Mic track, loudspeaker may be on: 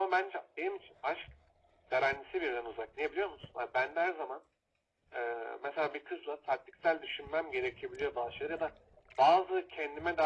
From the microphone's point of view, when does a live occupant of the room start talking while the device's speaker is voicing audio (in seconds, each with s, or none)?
none